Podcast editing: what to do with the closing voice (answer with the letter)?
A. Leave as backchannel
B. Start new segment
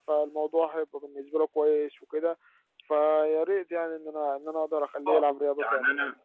B